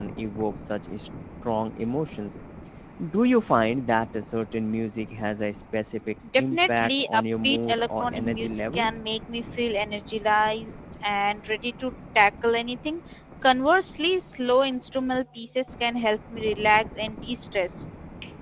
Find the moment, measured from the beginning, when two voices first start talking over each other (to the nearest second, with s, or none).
6 s